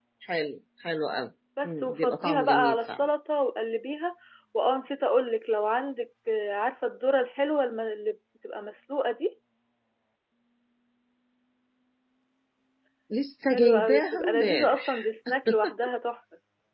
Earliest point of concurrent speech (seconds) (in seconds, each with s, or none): 1.6 s